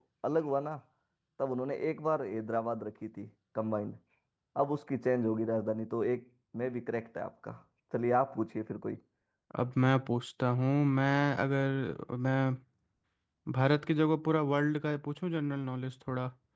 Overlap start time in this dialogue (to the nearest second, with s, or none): none